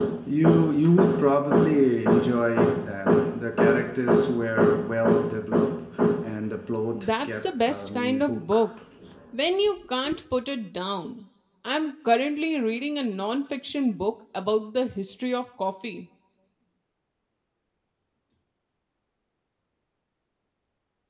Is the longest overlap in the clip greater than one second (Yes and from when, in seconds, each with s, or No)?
Yes, from 6.9 s